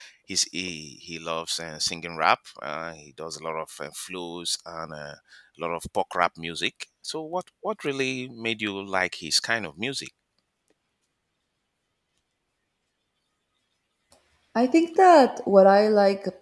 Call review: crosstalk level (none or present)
none